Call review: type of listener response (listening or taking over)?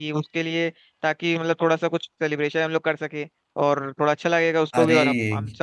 listening